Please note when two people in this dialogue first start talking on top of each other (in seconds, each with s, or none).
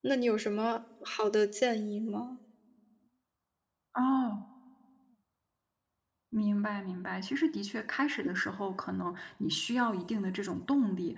none